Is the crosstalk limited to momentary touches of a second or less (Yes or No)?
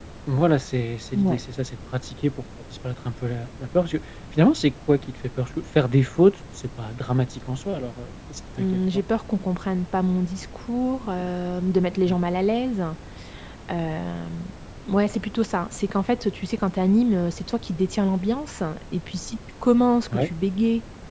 Yes